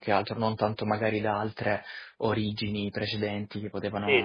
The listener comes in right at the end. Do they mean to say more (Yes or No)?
Yes